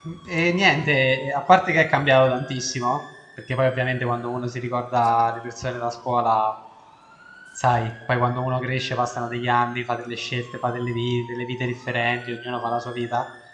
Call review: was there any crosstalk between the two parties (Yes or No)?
No